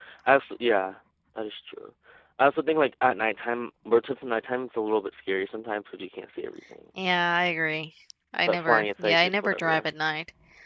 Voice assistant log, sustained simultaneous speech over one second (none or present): present